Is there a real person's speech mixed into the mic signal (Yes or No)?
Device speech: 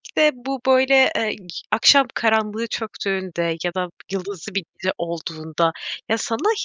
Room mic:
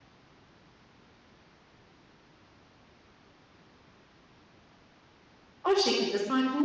Yes